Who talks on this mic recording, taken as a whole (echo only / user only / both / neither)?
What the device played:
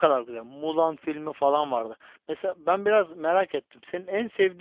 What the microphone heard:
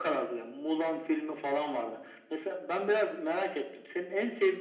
echo only